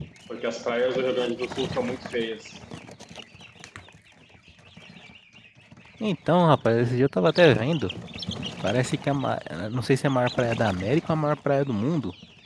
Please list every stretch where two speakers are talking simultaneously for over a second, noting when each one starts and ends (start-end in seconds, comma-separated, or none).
none